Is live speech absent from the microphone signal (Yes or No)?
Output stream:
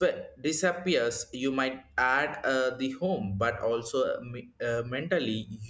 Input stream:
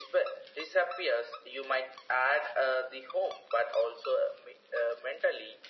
Yes